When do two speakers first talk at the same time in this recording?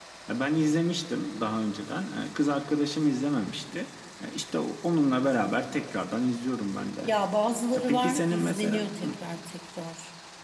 7.7 s

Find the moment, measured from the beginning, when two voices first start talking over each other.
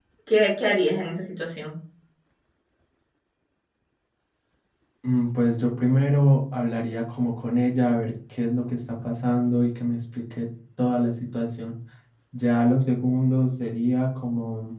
none

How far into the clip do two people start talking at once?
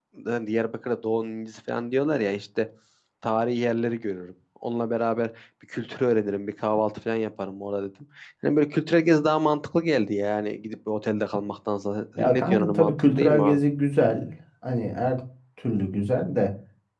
12.2 s

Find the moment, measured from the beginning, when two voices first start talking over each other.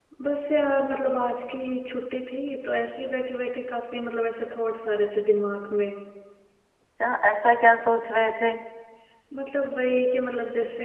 none

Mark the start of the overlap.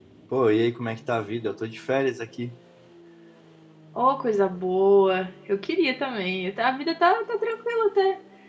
none

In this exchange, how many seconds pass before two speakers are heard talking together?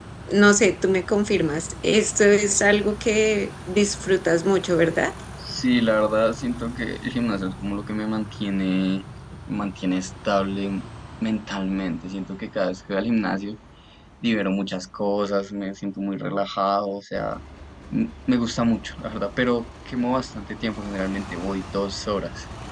none

